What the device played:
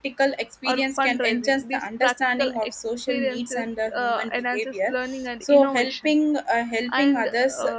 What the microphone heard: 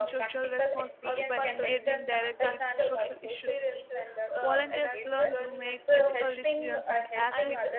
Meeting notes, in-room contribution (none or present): present